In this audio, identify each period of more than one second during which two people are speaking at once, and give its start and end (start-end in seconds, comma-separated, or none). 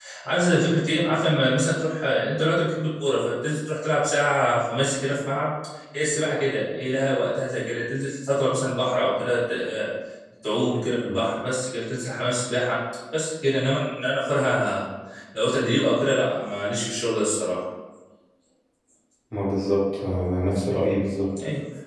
none